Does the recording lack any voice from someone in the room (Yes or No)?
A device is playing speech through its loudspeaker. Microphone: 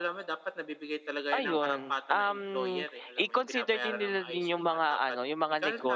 No